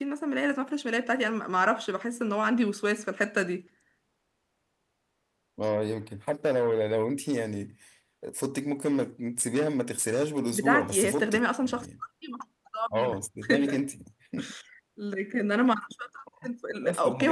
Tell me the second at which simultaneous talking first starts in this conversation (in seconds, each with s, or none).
10.5 s